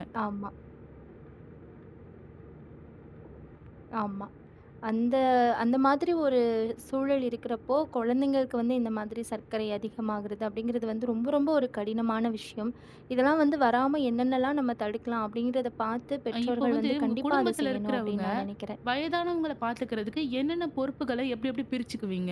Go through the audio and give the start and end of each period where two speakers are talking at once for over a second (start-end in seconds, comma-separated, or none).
16.3-18.2